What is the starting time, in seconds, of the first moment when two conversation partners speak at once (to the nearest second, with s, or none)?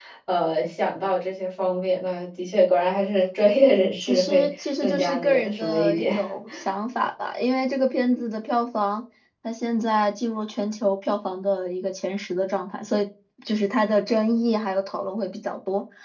4 s